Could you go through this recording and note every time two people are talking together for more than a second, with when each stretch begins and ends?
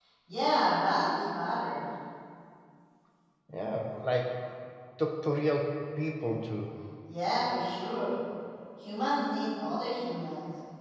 none

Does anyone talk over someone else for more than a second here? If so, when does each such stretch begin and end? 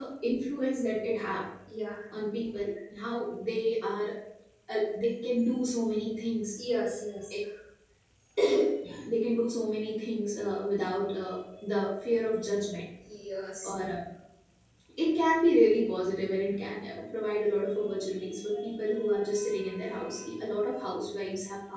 none

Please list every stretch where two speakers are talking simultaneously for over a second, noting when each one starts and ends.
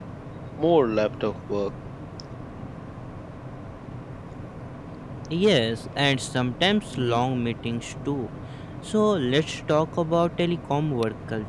none

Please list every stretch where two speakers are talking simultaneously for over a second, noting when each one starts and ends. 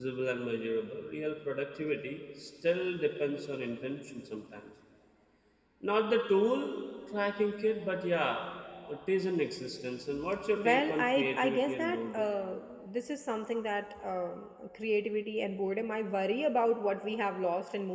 10.6-12.2

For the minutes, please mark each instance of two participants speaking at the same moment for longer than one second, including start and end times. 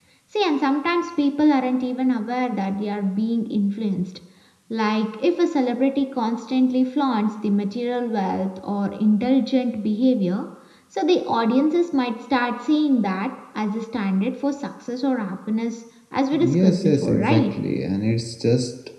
16.3-17.5

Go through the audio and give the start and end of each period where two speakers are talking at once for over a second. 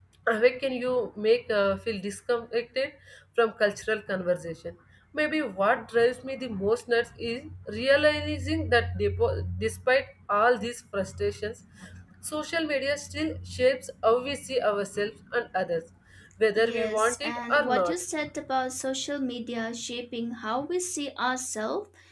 16.6-18.0

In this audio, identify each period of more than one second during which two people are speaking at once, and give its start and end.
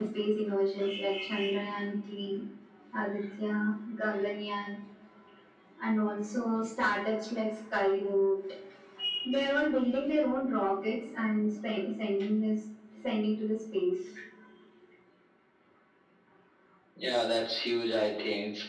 none

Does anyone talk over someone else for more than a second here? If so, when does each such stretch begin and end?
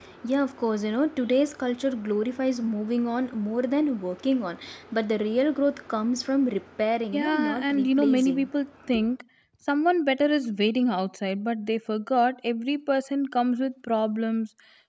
7.1-8.5

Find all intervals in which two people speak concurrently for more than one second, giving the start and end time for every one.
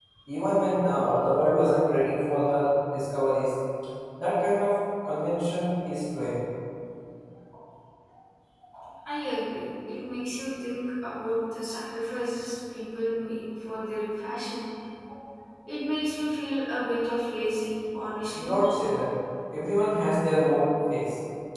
none

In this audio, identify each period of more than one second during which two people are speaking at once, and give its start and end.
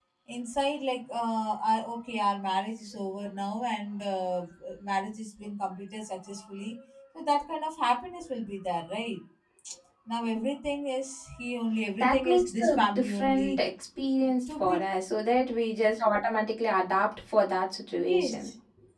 12.0-13.6

